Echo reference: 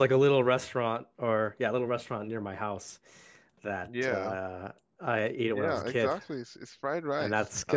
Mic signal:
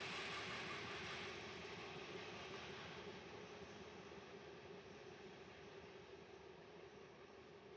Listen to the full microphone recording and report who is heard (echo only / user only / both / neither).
neither